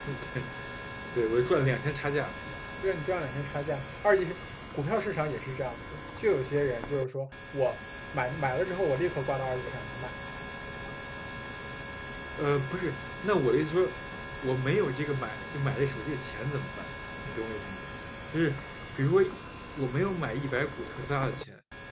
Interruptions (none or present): none